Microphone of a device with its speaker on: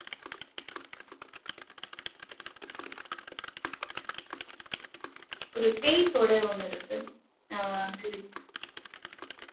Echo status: none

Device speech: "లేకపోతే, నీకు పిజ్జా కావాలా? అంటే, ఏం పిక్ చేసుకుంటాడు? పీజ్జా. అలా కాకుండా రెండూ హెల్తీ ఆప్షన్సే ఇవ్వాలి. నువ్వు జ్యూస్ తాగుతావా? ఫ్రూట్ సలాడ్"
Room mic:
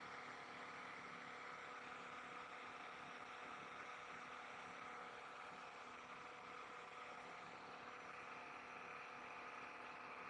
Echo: none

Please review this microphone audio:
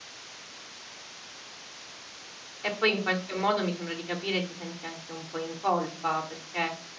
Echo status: none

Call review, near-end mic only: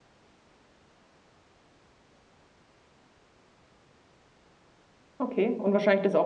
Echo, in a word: none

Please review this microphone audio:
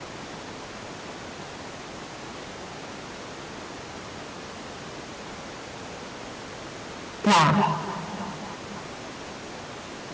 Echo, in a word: none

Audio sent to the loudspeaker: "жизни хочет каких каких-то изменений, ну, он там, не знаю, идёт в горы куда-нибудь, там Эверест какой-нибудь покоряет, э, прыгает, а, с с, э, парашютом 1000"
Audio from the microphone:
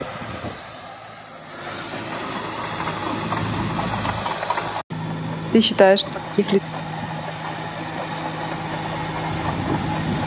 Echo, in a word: none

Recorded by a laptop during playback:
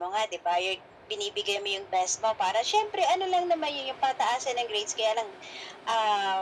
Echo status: present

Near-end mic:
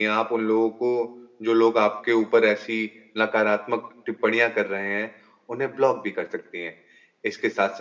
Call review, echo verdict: none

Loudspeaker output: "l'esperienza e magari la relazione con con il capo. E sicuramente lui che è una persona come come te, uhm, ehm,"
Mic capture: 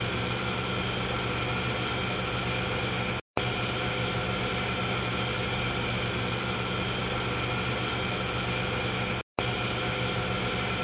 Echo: none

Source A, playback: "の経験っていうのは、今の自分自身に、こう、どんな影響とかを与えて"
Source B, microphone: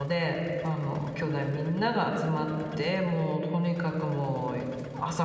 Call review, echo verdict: none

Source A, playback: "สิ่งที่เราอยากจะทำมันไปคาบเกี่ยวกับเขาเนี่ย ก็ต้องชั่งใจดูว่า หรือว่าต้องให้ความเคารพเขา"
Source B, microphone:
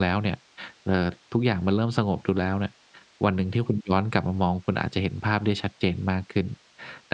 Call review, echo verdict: none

